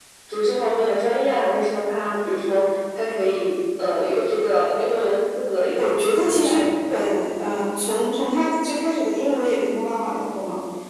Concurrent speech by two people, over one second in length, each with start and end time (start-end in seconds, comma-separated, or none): 5.7-7.0